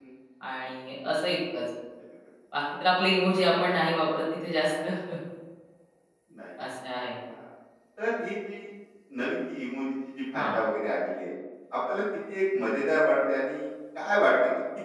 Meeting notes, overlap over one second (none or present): none